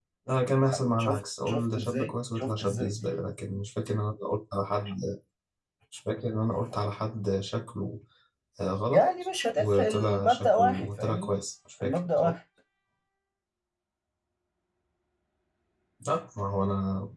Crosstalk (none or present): present